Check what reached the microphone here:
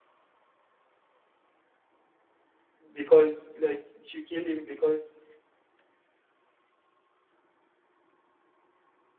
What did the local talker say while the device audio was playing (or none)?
because like she kill him because